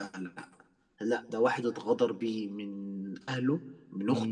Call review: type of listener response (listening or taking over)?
listening